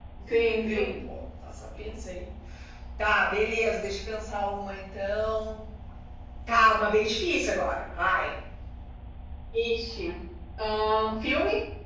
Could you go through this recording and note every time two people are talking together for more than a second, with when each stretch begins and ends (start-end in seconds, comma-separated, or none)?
none